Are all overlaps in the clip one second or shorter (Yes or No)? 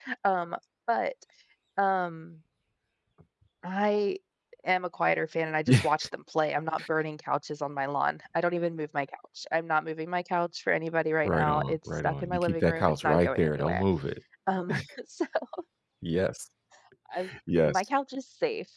No